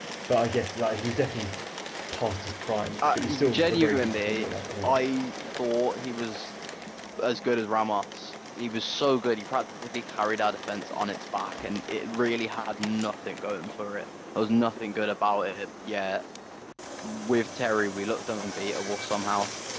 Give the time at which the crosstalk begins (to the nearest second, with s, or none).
3 s